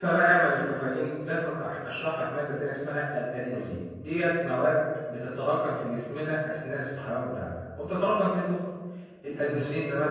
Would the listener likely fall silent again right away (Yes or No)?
Yes